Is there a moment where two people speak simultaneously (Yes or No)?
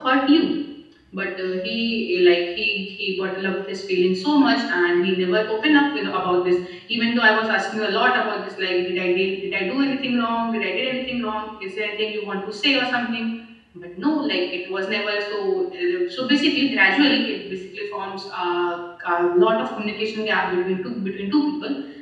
No